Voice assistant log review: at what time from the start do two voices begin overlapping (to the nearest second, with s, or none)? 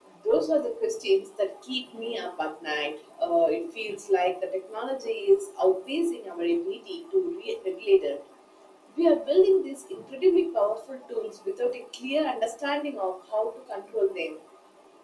none